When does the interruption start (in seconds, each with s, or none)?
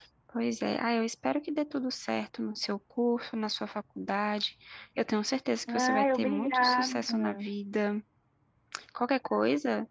5.7 s